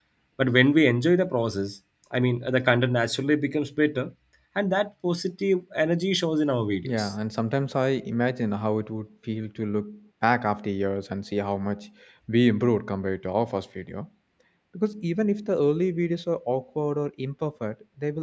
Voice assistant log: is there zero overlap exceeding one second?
Yes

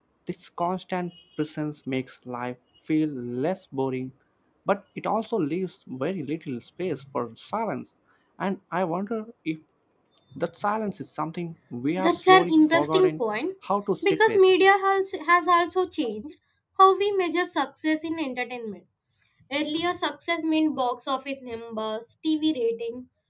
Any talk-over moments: Yes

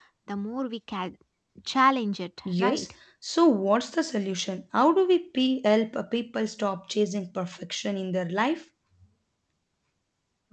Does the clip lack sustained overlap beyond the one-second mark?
Yes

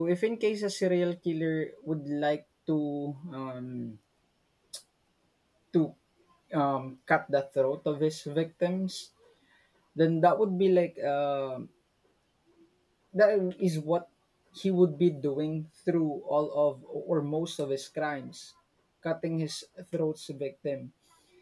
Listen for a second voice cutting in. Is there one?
No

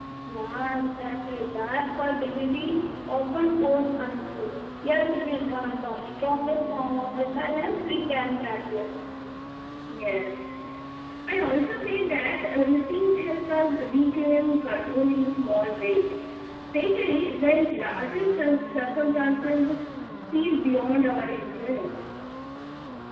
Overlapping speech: No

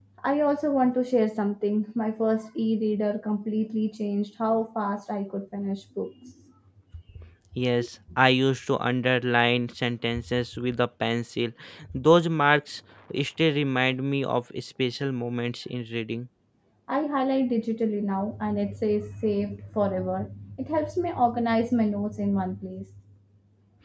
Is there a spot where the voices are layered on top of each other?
No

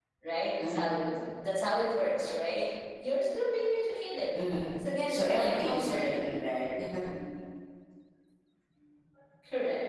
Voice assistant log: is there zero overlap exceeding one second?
No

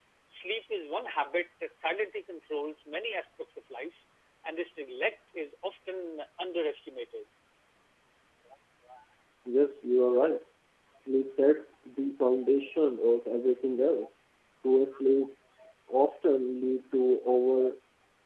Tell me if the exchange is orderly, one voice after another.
Yes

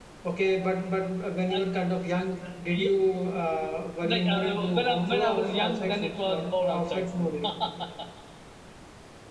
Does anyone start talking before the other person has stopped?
Yes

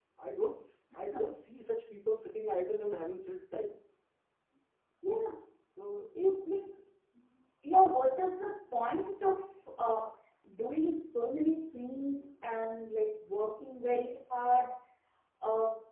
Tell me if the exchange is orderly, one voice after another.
Yes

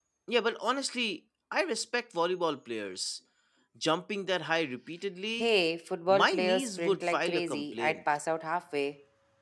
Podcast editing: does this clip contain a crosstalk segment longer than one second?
Yes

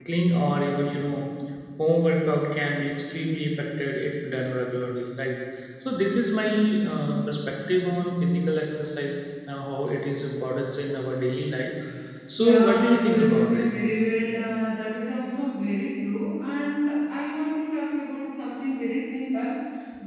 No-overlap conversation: No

